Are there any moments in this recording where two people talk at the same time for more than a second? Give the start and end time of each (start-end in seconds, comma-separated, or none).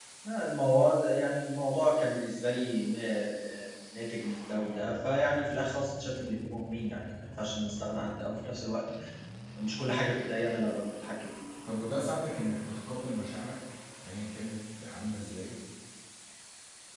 none